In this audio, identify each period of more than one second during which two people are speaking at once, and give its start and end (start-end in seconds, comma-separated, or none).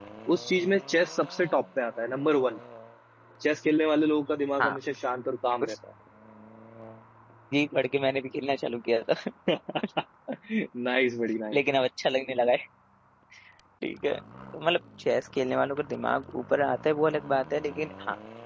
none